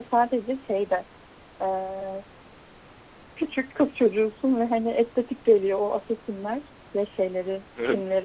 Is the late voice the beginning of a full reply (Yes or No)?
No